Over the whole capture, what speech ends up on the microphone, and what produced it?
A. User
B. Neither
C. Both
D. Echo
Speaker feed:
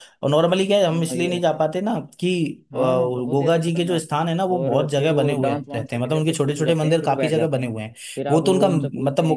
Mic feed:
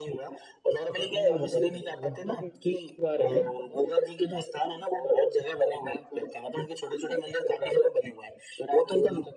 C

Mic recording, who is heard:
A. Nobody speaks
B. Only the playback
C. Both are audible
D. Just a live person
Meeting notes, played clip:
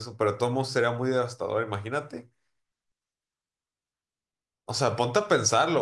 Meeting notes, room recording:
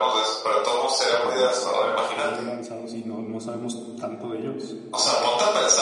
C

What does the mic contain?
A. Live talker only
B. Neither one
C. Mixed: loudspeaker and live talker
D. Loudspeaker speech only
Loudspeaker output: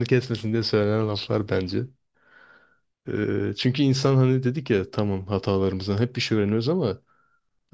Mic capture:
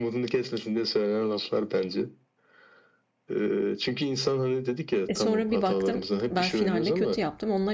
C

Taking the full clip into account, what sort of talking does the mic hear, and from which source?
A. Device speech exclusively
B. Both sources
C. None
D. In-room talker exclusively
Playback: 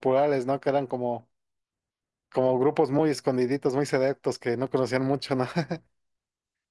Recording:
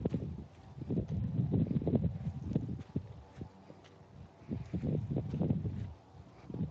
C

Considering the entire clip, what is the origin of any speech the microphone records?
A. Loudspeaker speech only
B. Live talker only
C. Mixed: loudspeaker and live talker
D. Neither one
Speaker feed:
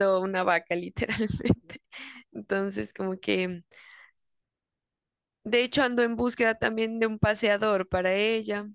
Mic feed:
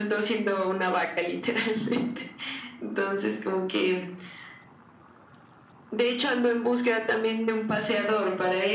A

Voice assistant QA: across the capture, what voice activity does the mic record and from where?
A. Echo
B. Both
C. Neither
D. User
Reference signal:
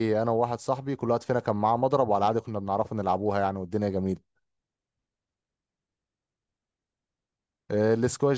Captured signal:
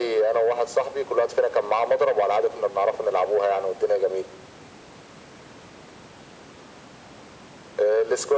A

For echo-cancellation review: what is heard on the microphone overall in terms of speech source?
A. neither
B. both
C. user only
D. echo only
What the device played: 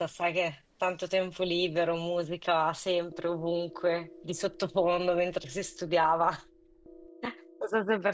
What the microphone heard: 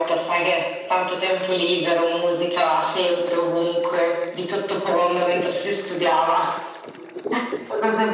D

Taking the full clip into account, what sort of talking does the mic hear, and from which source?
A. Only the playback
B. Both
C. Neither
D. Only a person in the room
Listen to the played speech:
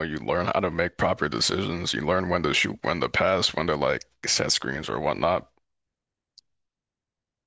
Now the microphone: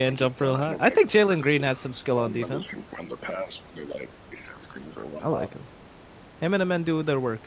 B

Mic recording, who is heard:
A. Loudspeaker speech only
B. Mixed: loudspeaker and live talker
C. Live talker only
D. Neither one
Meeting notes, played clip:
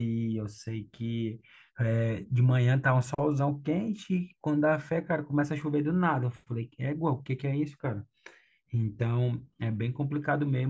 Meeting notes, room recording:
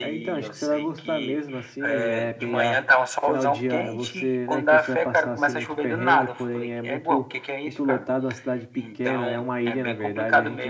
B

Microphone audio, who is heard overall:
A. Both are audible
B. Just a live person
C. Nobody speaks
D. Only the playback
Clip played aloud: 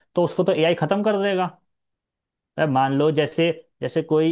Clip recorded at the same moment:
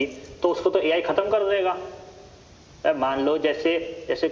D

